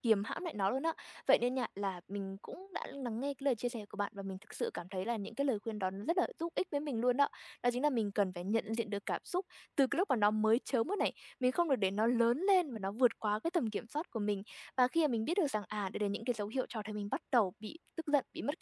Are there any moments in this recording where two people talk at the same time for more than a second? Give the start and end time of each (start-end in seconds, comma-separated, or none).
none